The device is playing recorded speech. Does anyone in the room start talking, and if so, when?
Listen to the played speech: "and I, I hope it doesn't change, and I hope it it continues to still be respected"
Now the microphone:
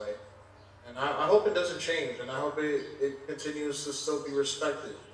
none

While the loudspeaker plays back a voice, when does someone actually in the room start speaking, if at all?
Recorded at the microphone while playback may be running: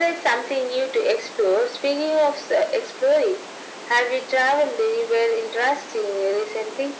none

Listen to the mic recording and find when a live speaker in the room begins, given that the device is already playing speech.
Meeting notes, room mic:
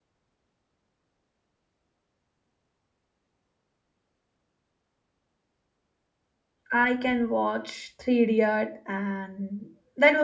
7 s

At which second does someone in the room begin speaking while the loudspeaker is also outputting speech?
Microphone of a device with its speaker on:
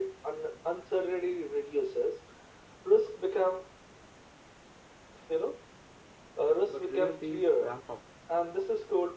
7 s

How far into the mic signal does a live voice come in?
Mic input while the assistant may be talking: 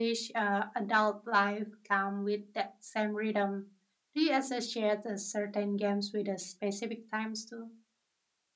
none

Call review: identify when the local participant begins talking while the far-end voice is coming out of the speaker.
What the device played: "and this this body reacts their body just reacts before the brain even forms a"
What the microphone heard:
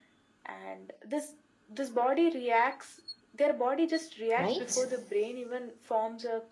4 s

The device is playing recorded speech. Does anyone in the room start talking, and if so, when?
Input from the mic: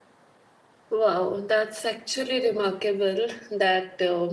1 s

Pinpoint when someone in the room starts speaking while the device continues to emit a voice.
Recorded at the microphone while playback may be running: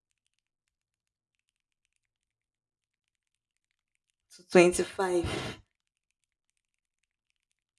4 s

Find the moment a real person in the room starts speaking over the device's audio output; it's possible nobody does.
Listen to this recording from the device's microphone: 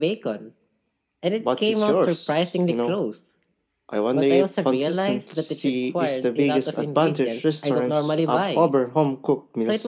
none

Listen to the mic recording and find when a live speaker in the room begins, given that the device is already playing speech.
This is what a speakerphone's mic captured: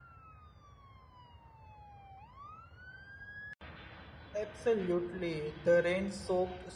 4 s

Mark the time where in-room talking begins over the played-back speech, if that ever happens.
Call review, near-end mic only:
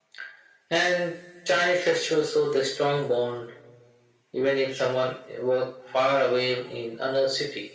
none

